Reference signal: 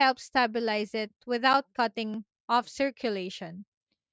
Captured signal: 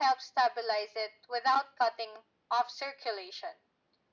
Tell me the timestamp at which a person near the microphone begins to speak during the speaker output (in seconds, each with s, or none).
none